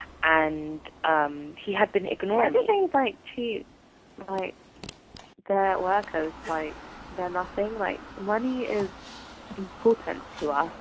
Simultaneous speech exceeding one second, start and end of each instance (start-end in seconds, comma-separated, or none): none